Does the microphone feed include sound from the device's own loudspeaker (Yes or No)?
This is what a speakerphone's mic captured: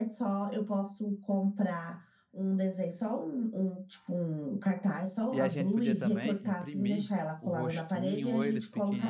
Yes